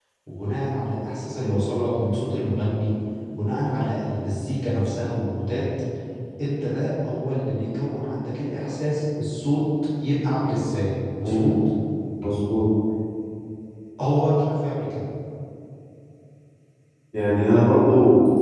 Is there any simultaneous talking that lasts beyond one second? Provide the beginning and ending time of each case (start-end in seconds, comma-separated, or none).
none